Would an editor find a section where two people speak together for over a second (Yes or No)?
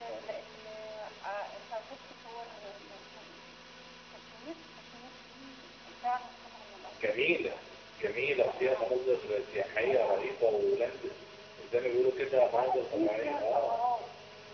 Yes